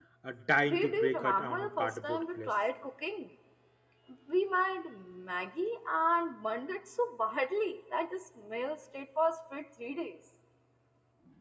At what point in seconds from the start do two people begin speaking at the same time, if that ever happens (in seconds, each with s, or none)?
0.7 s